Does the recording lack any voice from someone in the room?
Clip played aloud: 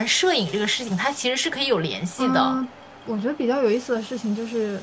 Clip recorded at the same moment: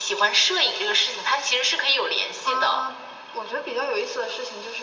Yes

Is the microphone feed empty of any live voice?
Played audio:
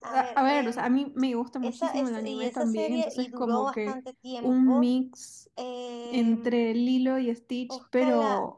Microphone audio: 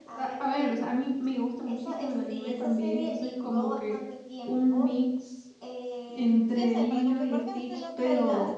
No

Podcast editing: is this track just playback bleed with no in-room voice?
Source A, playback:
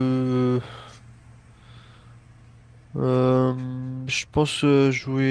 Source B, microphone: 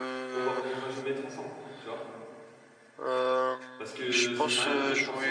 No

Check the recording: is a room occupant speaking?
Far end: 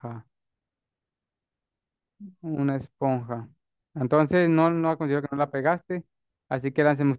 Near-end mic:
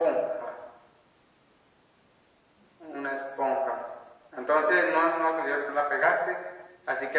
No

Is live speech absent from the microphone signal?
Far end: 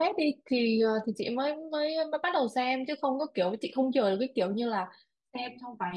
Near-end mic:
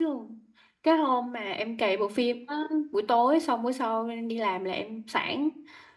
No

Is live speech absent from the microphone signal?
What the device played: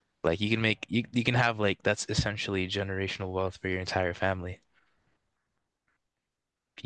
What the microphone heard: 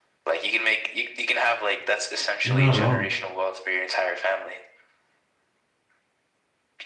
No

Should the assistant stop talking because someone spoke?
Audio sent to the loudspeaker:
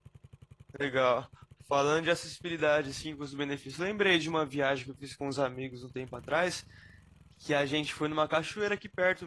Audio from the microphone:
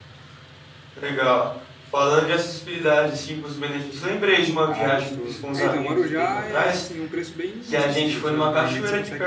Yes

